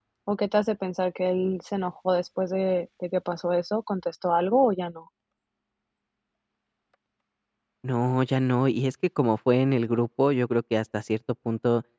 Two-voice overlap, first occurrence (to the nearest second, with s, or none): none